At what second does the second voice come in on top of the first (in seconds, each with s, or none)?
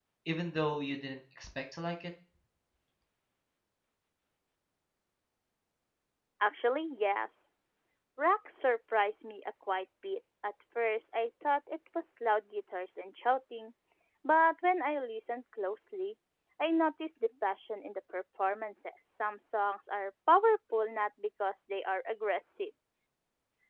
none